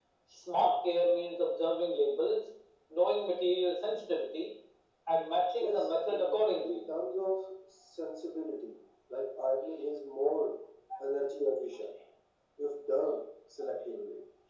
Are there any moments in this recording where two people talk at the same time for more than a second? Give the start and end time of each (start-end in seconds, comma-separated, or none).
5.6-6.9